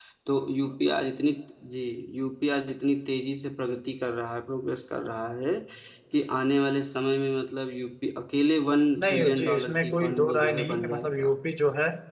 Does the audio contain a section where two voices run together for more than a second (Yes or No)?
Yes